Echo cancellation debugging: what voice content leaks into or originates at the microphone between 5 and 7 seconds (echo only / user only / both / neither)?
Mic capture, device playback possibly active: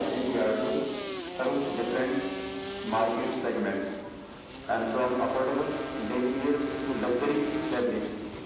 echo only